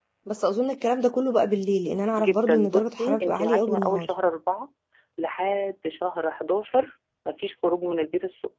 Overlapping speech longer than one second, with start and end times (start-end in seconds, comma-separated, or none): 2.2-4.1